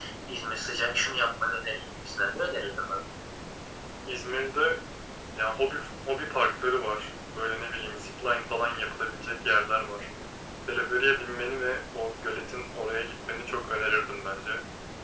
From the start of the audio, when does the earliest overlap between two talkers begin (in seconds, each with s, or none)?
none